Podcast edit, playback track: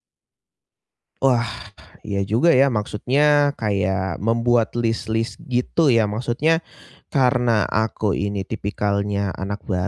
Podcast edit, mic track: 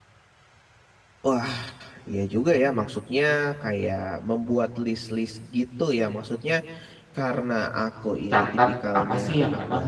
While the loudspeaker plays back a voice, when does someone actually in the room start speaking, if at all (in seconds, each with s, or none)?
8.3 s